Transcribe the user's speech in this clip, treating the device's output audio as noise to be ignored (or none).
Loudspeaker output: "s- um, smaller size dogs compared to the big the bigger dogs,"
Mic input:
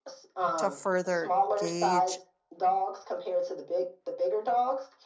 to further gauge